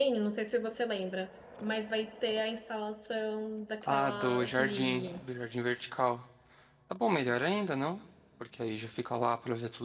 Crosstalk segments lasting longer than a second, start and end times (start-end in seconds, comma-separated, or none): 3.8-5.1